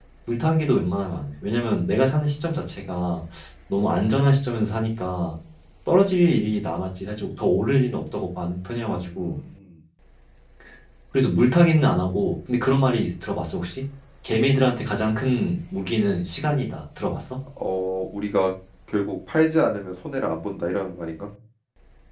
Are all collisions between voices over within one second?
Yes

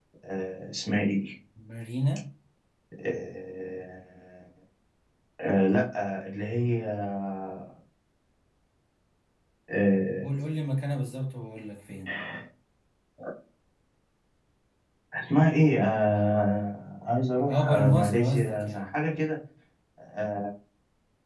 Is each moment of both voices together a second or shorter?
No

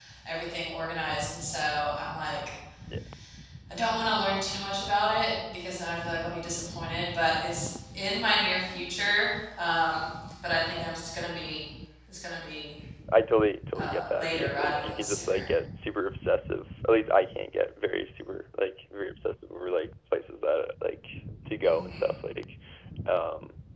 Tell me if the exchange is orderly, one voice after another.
No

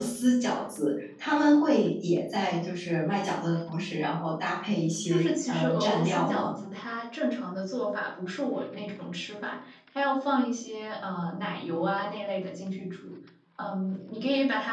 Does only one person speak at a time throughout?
No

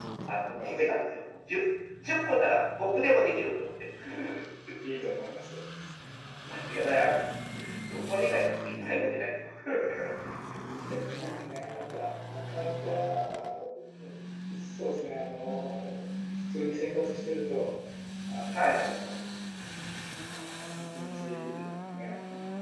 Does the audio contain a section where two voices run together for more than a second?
No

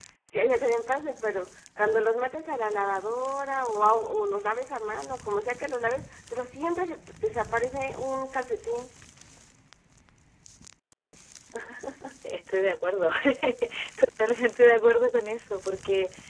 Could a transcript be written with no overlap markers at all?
Yes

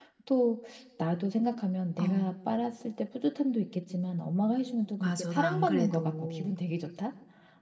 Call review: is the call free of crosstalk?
No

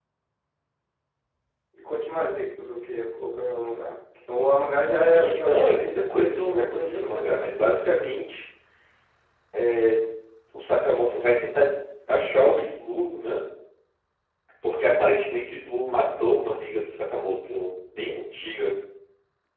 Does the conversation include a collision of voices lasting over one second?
Yes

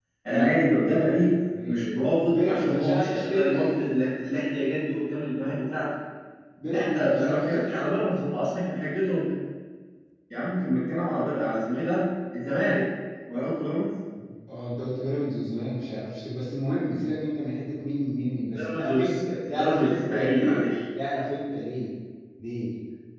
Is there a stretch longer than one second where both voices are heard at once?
Yes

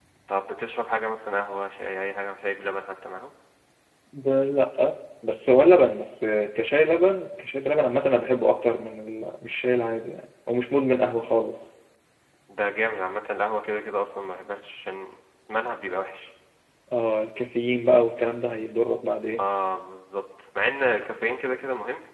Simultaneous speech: No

